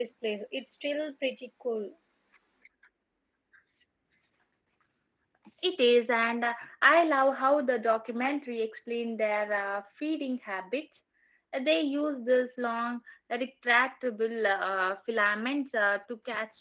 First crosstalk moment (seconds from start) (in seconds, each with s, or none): none